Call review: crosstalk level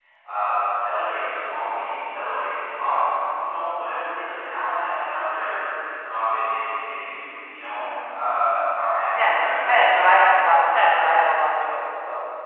present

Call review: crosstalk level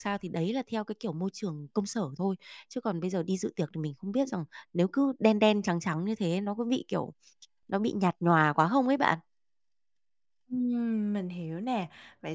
none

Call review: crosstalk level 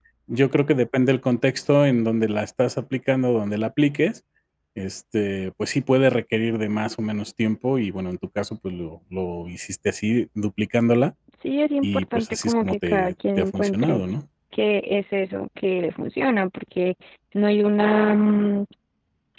present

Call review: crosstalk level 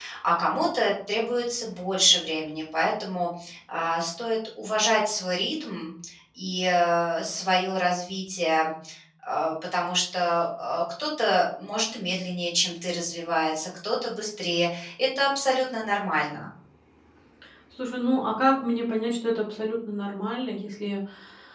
none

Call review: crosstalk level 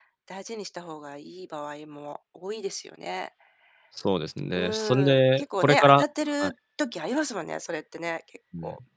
present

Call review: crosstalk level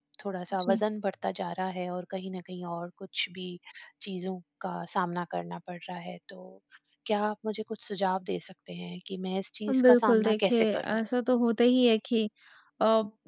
present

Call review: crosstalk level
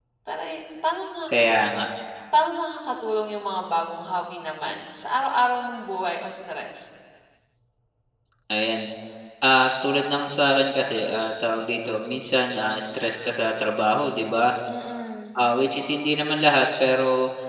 none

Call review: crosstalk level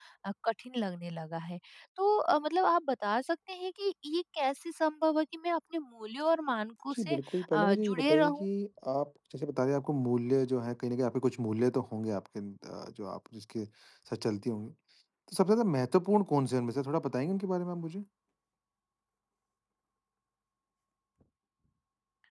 present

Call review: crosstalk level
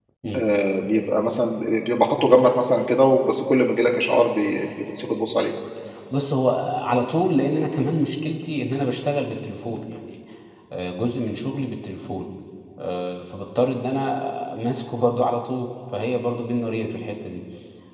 none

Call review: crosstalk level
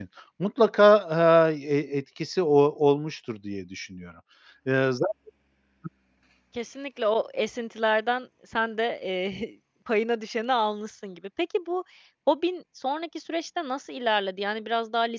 none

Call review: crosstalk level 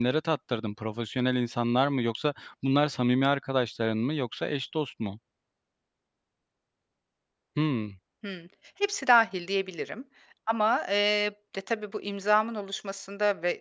none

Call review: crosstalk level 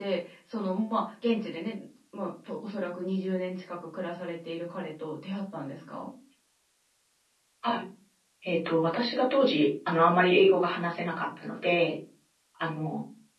none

